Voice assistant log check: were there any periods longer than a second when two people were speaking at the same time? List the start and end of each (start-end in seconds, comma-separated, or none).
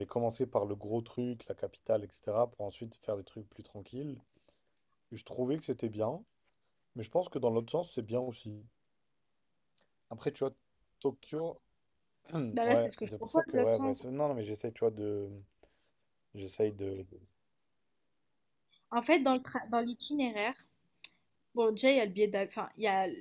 12.6-14.0